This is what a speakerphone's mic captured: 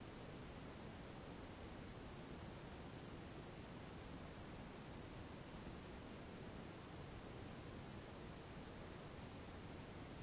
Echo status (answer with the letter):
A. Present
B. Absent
B